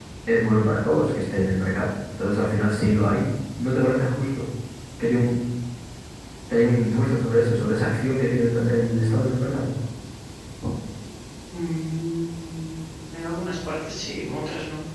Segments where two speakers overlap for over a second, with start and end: none

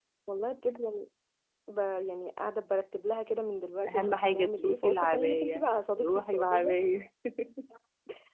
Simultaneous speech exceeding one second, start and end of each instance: 3.9-6.7

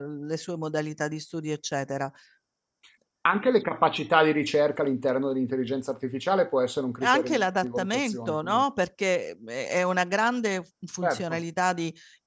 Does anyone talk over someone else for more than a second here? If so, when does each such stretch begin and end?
7.0-8.6

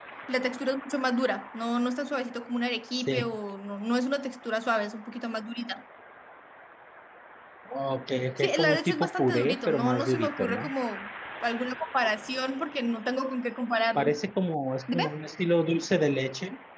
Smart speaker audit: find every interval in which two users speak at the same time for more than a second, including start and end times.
8.4-10.7

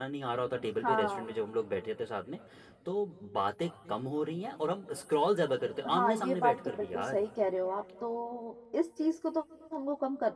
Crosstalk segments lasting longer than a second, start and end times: 5.9-7.2

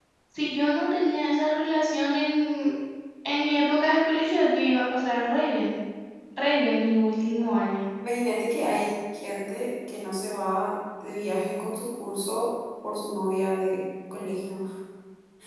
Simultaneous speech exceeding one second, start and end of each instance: none

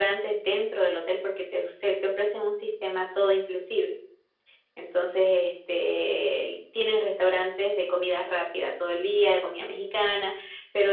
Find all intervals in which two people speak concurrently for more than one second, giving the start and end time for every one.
none

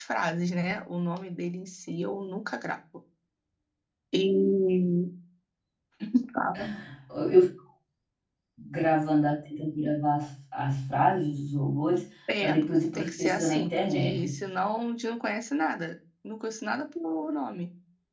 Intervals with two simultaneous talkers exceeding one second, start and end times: 12.9-14.4

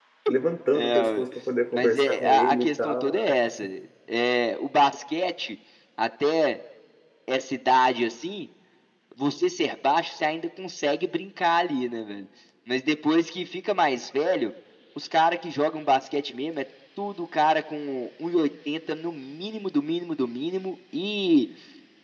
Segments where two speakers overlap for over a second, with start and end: 1.8-3.1

